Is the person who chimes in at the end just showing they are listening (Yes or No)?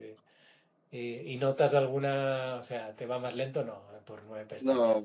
No